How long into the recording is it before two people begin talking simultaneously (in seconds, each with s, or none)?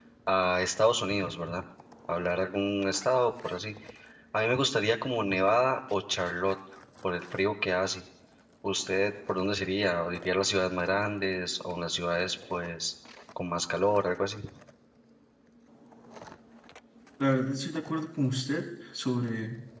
none